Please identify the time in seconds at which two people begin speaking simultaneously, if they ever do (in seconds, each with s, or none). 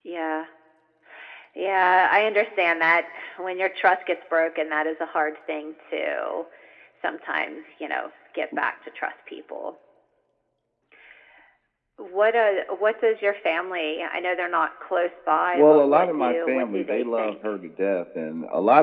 15.5 s